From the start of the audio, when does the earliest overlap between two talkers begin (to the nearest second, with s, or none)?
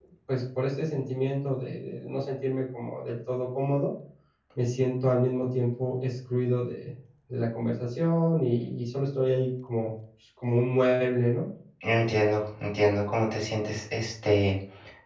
none